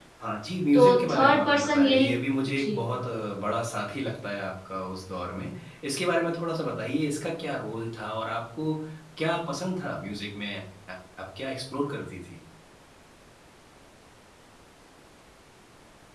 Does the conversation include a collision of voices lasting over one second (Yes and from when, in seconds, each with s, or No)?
Yes, from 0.7 s